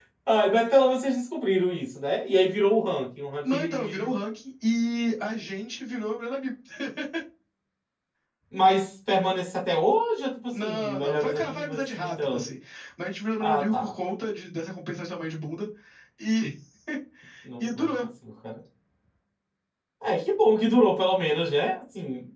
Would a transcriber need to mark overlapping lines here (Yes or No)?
Yes